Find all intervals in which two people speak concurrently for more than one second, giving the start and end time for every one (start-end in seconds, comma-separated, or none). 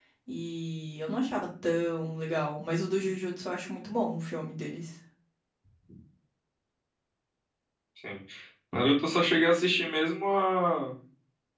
none